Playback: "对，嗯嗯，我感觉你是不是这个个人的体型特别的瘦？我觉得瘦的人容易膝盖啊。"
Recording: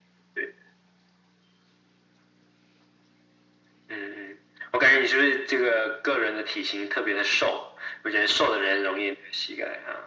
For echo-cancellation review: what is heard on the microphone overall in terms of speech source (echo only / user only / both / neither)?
echo only